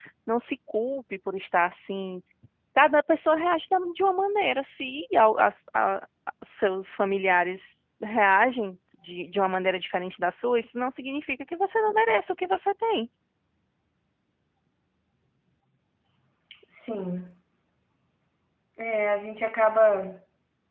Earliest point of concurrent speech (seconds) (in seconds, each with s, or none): none